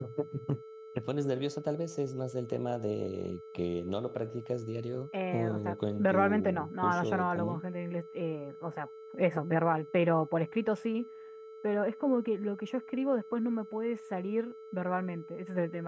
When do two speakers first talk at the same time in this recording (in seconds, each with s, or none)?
5.1 s